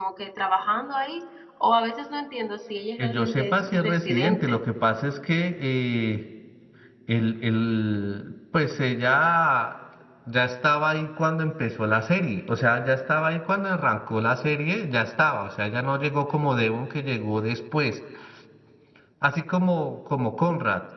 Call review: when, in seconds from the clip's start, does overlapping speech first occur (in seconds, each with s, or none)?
3.0 s